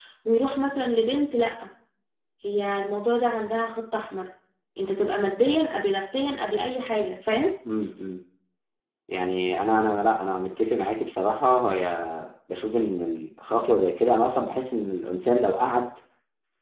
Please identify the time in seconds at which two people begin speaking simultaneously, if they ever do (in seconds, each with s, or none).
none